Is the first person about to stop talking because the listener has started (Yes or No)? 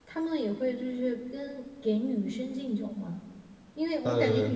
No